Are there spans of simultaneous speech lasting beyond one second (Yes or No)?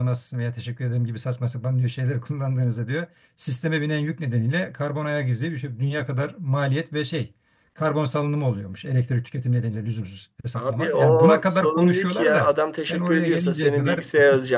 Yes